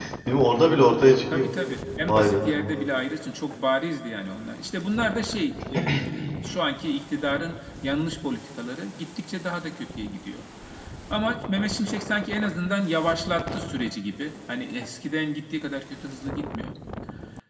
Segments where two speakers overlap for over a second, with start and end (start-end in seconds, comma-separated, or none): none